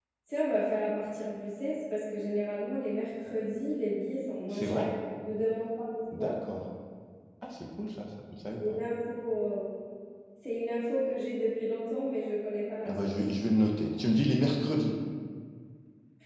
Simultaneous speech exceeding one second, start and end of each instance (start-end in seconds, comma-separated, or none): none